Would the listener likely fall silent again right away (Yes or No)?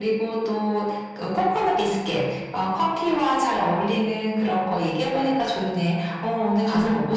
No